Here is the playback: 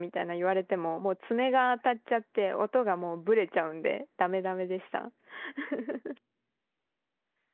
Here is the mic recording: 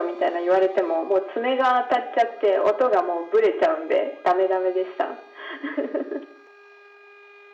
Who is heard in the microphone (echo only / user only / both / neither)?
echo only